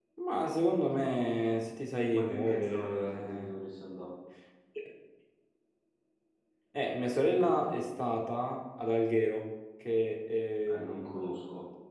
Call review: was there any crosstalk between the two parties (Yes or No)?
Yes